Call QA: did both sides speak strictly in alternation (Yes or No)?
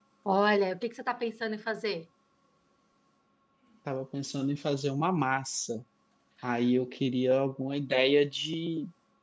Yes